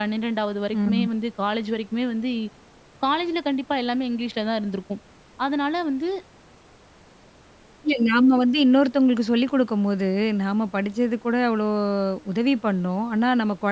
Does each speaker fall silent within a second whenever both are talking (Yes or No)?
Yes